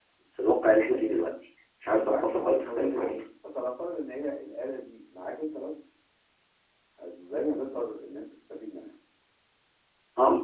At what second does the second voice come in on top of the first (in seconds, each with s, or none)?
1.9 s